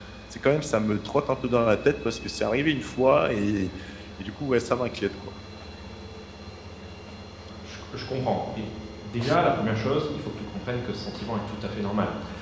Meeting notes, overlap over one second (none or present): none